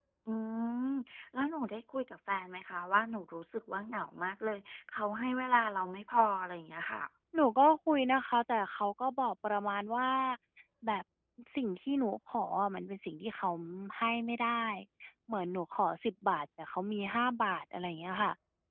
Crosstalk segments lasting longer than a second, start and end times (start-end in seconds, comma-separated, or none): none